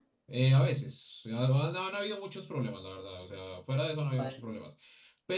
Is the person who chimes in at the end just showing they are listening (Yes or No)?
Yes